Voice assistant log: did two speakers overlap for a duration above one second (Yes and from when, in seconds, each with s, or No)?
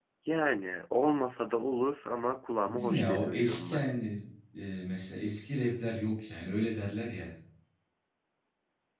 Yes, from 2.6 s